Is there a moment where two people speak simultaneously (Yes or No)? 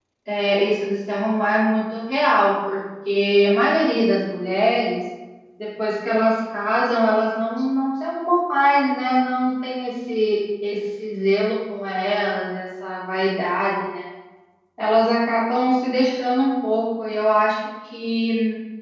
No